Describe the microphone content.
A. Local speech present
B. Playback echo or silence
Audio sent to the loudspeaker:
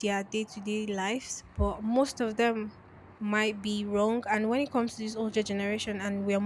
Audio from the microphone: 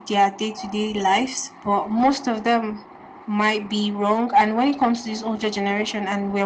B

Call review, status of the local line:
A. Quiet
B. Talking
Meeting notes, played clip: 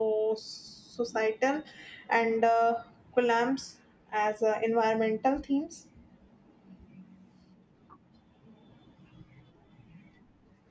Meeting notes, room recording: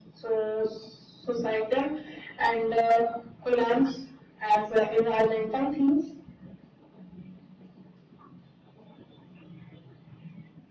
A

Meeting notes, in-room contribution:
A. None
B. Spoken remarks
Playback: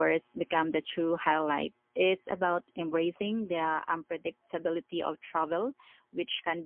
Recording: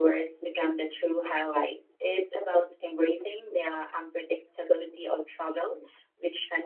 A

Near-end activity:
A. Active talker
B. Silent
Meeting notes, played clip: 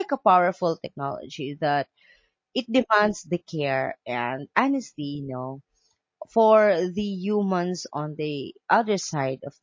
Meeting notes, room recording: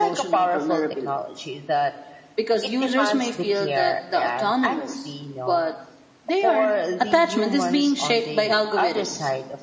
A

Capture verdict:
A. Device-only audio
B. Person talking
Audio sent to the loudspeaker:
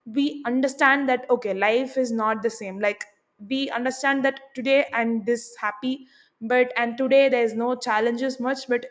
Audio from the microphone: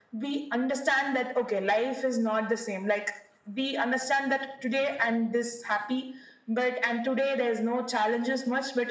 A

